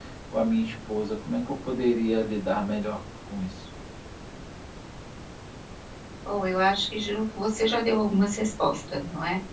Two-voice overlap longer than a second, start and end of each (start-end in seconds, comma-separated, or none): none